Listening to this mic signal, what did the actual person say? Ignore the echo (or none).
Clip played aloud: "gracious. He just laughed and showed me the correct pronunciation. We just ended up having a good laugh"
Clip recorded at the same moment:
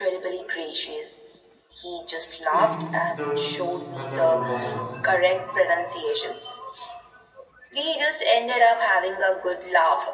It's those memorable moments,